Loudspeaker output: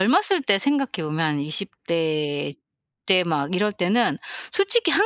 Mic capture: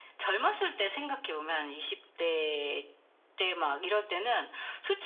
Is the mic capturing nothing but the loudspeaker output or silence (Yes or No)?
Yes